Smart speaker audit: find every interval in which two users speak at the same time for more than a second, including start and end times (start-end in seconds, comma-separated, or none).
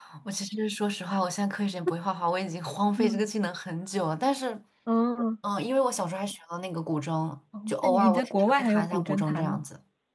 7.7-9.6